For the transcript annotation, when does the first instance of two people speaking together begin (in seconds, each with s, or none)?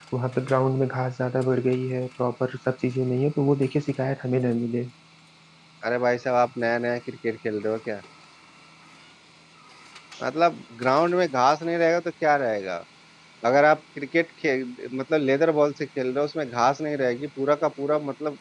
none